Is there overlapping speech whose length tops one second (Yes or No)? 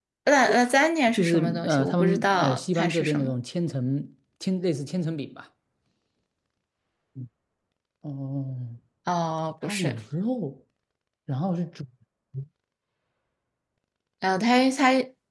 Yes